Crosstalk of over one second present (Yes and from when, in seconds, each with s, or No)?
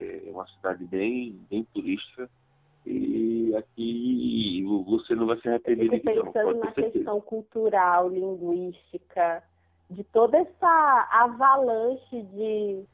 Yes, from 5.6 s